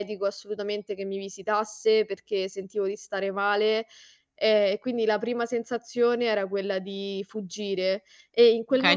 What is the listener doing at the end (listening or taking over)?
taking over